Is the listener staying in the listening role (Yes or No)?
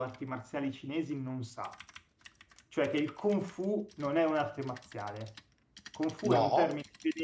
Yes